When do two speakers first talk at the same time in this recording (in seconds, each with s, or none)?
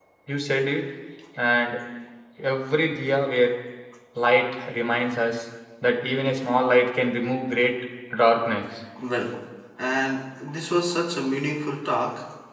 none